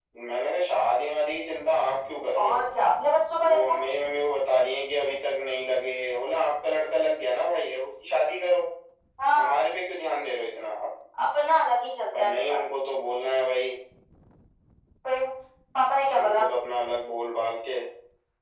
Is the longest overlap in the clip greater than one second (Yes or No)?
No